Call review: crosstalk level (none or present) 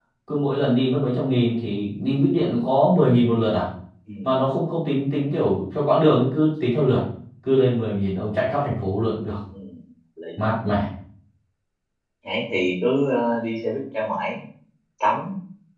none